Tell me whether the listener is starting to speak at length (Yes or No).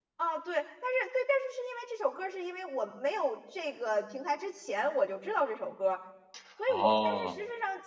No